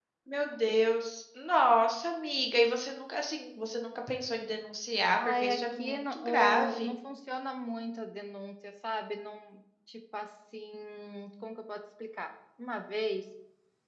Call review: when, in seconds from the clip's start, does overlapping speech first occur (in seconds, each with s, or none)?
5.1 s